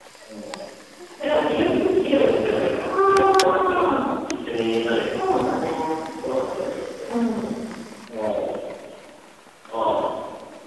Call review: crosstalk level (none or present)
present